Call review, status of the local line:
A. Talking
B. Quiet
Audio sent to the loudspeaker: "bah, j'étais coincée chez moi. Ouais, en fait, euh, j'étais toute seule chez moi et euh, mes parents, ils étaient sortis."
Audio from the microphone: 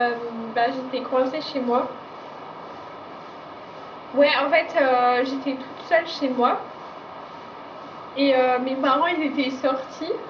B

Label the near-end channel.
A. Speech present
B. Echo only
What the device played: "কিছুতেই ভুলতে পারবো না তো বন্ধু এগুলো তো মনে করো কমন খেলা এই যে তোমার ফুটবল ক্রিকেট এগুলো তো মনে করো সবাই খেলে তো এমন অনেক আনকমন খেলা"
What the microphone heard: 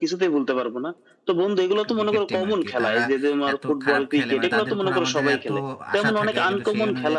A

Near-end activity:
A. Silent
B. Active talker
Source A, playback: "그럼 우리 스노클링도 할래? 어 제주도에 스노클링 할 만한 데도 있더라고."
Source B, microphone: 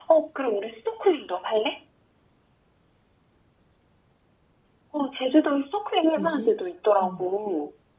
B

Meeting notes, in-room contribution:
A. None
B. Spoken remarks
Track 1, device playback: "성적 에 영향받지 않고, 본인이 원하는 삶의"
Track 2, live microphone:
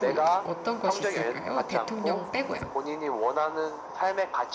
B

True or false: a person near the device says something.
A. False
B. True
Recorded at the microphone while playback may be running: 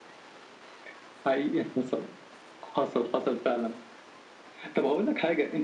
A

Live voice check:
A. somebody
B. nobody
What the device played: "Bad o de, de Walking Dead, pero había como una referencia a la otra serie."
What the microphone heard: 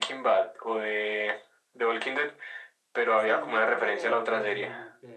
A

